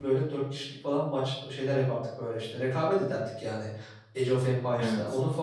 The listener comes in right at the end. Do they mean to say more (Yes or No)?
No